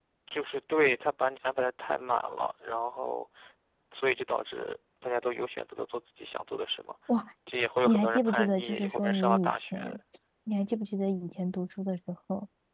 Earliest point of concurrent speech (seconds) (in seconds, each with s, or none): 7.8 s